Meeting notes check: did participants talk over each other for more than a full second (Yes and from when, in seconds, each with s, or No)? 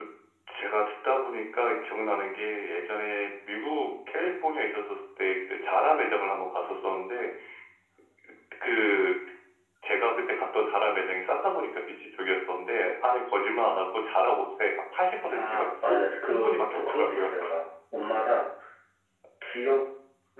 Yes, from 15.2 s